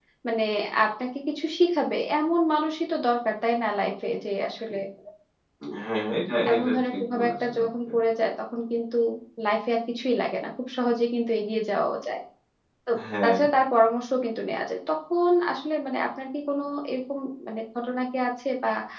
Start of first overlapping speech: 6.5 s

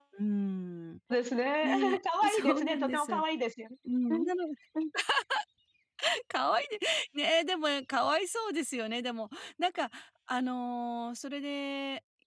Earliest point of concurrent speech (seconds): 1.6 s

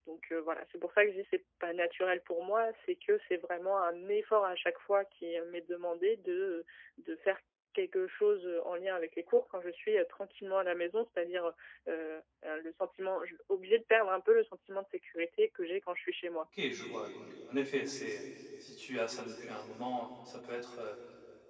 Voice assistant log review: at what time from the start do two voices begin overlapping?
none

